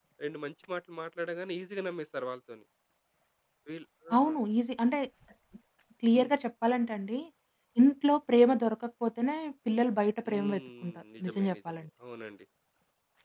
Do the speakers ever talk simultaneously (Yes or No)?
Yes